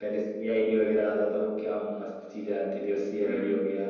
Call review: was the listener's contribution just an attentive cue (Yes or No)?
Yes